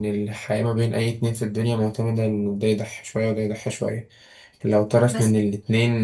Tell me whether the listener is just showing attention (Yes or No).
Yes